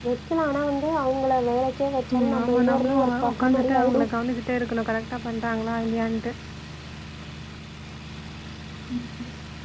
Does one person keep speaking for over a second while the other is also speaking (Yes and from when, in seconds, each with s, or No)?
Yes, from 2.1 s